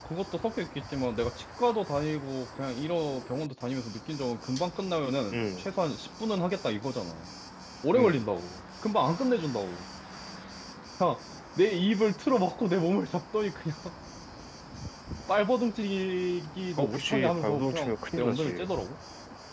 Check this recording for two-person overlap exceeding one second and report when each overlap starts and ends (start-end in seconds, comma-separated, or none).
16.8-18.7